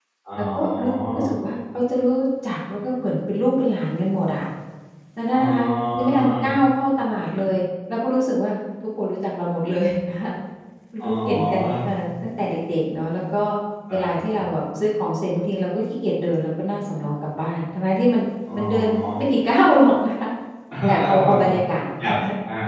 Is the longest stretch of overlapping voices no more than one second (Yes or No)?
No